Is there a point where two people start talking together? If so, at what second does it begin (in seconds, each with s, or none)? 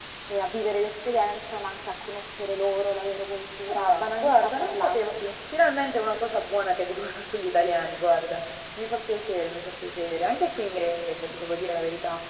3.7 s